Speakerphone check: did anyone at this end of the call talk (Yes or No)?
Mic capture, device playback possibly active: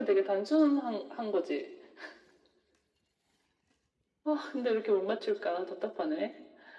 No